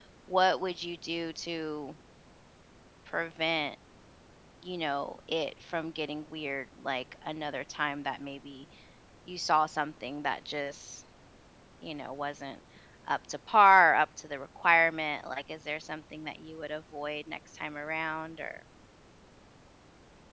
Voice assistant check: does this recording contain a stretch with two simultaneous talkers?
No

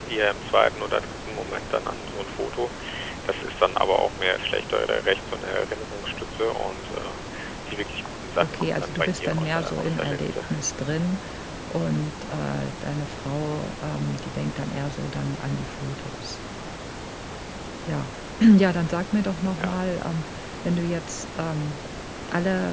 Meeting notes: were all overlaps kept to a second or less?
No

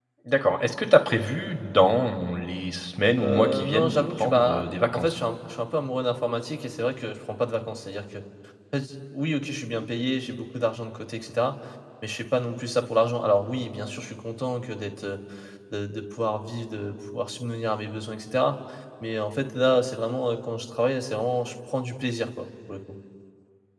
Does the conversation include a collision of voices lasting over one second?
Yes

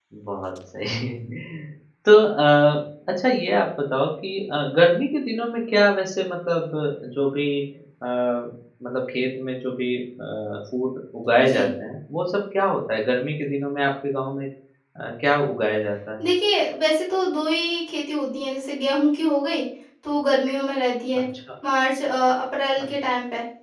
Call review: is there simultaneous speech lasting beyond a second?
No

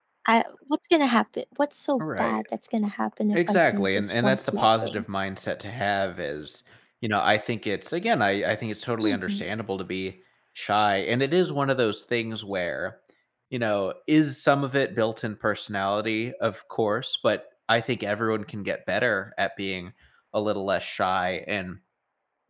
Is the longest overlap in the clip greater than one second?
Yes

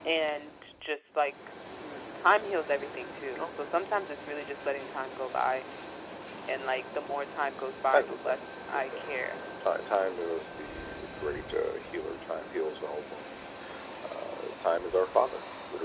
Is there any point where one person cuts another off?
Yes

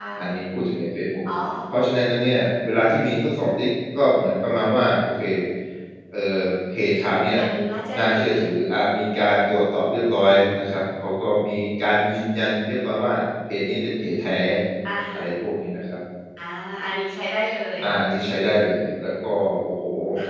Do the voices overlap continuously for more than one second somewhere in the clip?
No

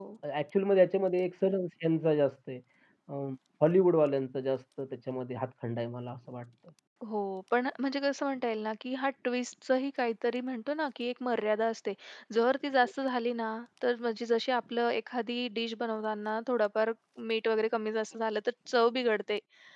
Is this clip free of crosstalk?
Yes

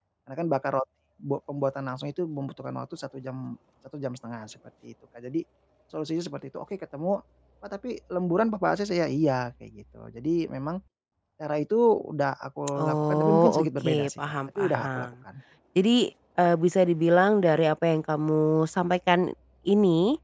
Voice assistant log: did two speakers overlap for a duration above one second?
Yes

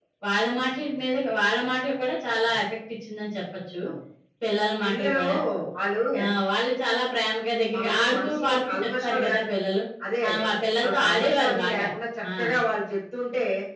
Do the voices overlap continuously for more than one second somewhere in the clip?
Yes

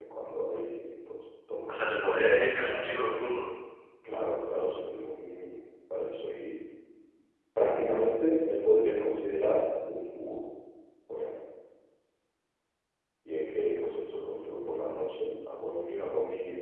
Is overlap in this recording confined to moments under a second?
No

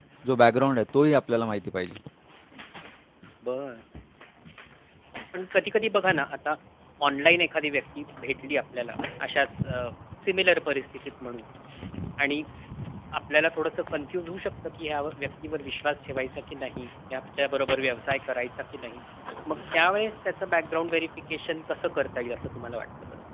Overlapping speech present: No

